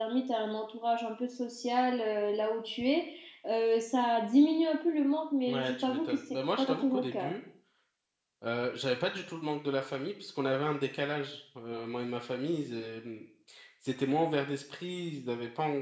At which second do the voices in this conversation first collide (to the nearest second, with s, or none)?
5 s